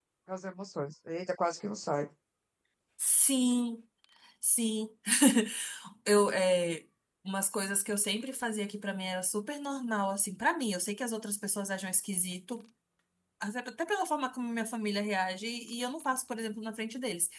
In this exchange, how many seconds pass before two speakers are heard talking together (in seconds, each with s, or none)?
none